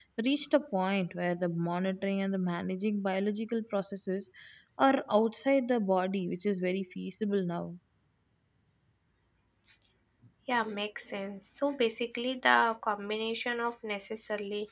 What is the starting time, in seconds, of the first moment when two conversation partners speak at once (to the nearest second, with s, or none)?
none